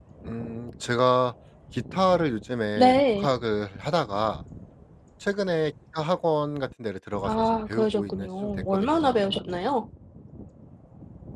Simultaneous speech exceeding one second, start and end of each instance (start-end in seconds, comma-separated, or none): 7.2-9.2